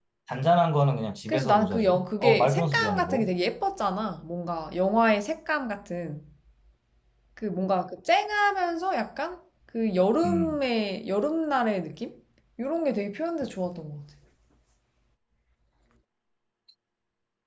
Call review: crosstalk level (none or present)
present